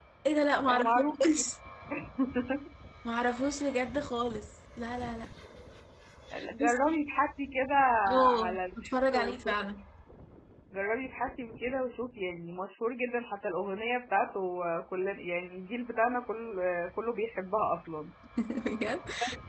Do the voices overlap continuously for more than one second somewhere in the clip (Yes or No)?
Yes